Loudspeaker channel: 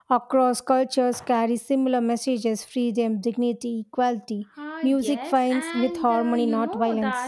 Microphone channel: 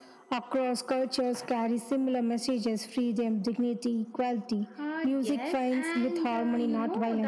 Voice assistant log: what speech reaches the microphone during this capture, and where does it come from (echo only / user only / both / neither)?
echo only